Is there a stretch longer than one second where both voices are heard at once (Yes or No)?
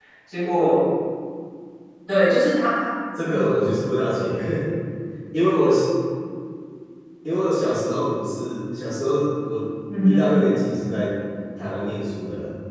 No